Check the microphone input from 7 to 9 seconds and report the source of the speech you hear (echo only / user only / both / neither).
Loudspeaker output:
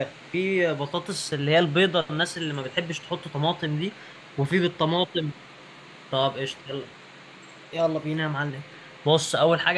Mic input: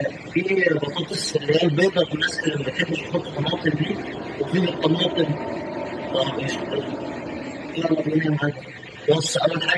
echo only